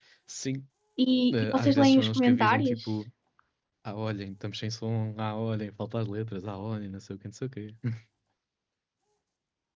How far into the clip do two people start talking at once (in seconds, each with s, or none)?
1.3 s